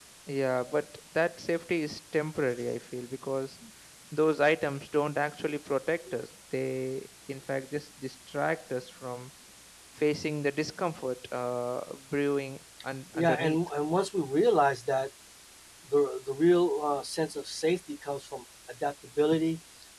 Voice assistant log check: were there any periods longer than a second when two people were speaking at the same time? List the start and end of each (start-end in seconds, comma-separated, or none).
none